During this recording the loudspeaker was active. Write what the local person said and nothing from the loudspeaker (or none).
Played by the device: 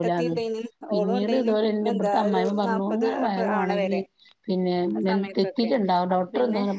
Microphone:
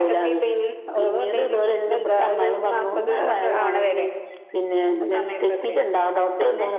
none